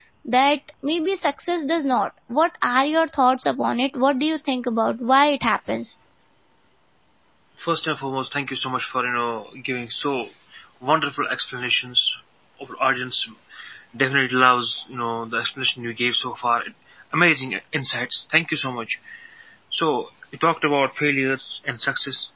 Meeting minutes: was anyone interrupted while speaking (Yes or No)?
No